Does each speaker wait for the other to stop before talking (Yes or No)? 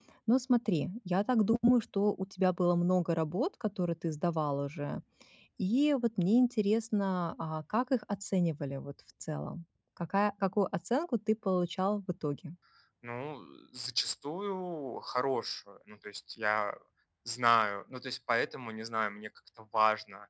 Yes